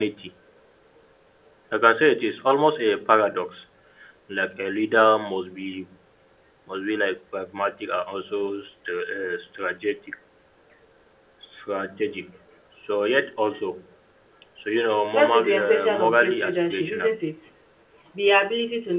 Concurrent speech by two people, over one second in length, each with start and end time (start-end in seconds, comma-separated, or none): 15.1-17.1